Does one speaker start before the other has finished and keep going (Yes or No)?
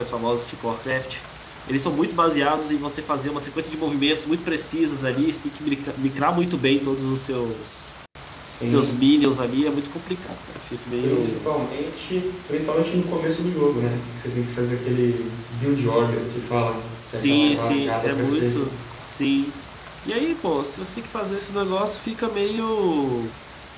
Yes